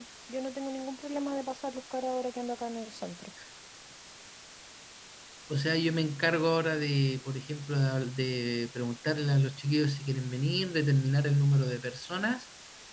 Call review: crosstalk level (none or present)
none